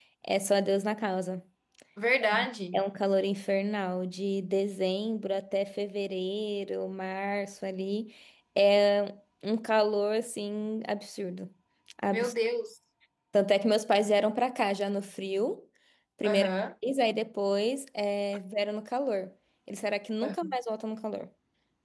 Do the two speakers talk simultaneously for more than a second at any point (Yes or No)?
No